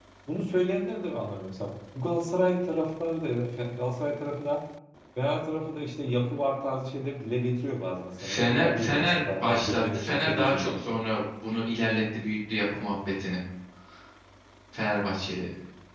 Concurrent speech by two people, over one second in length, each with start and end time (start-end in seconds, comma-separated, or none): 8.2-10.7